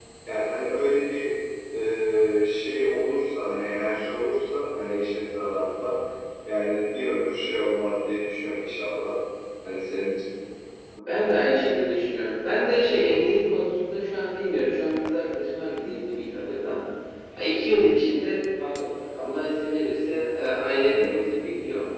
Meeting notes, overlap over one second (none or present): none